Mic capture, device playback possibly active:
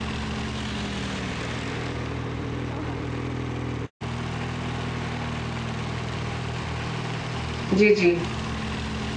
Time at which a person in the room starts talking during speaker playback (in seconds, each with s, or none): 7.7 s